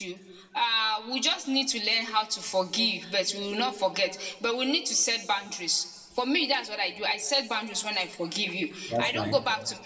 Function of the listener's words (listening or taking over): listening